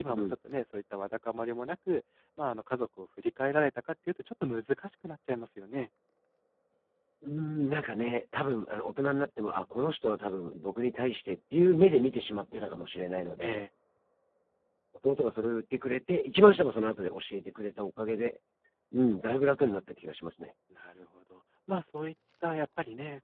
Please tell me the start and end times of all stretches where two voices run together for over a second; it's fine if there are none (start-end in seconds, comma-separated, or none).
none